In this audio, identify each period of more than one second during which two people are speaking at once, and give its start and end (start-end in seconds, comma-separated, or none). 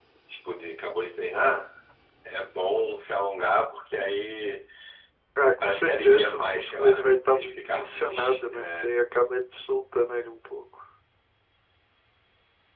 5.6-8.8